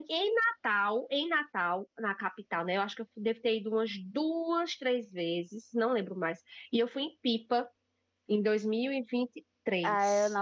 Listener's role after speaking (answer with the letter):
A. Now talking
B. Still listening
A